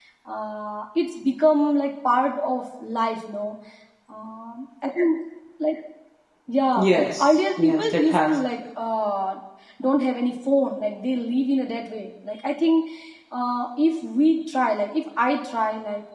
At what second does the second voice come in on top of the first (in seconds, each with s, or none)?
6.8 s